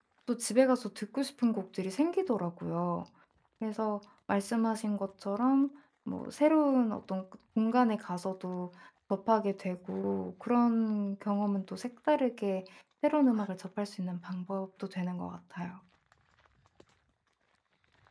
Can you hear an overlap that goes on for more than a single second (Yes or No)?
No